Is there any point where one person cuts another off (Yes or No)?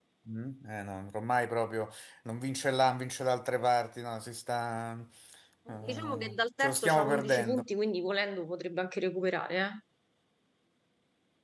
Yes